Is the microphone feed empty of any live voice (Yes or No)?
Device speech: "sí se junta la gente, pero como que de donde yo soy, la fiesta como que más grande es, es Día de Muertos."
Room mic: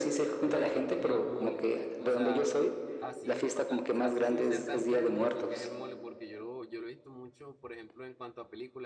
No